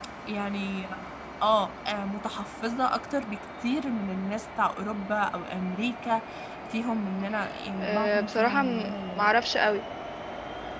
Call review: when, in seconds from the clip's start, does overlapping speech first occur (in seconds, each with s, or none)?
7.8 s